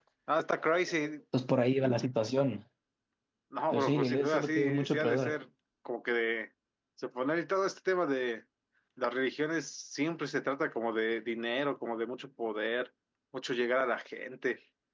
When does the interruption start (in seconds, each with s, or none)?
3.7 s